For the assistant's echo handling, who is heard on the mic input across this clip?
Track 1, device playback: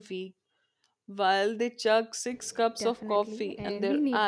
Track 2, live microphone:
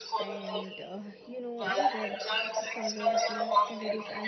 both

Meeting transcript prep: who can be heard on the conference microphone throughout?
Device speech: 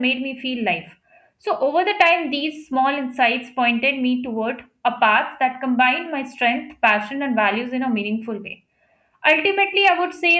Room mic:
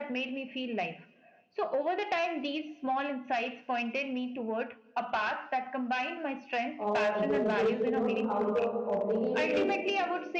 both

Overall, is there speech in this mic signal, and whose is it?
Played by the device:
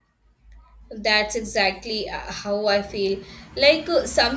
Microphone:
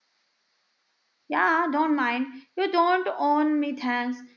user only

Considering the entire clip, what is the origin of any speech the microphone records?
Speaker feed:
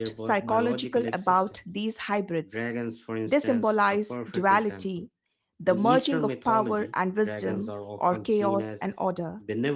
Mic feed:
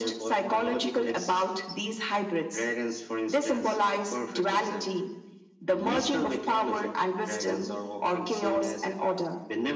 echo only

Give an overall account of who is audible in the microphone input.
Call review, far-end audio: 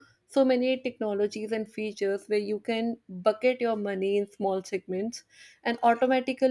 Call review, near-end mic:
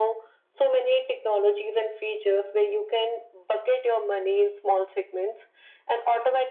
echo only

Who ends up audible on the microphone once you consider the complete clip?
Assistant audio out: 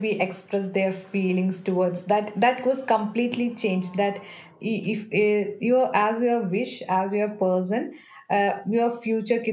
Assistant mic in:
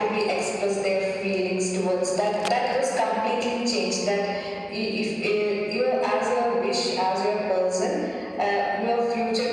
echo only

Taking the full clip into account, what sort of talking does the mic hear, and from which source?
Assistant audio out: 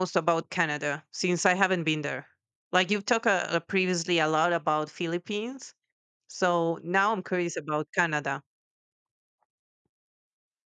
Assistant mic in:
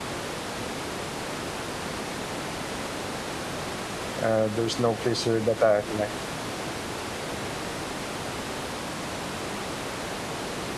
user only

